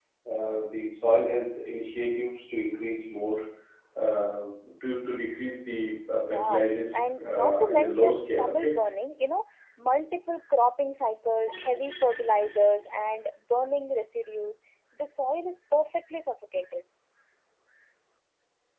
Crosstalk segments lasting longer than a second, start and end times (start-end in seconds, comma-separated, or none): 6.3-8.8